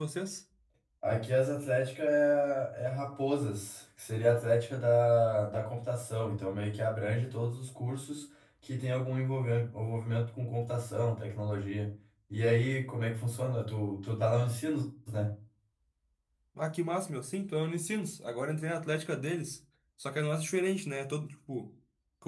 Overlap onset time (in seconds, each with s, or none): none